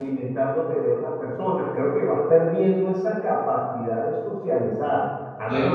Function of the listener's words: listening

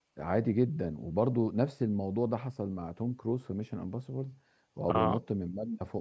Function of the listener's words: listening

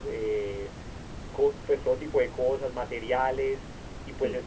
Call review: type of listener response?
listening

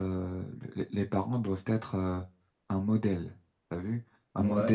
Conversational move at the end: listening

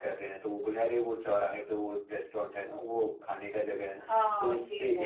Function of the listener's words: taking over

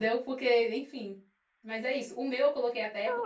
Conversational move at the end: taking over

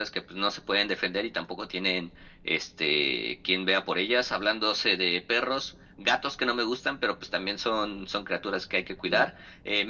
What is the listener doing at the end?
listening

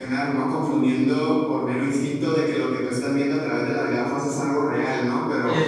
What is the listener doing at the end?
taking over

